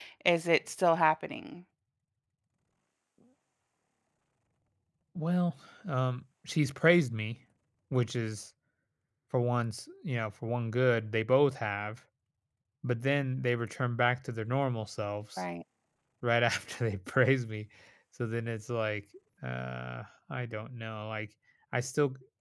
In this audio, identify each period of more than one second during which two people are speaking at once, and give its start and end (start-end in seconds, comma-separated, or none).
none